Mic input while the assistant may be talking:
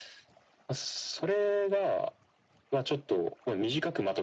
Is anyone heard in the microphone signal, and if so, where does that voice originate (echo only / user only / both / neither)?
echo only